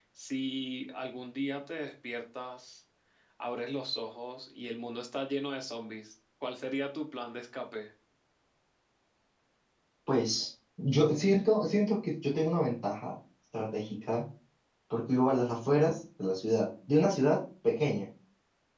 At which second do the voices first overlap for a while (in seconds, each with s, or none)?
none